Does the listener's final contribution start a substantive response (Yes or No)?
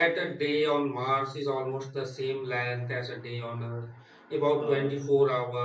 No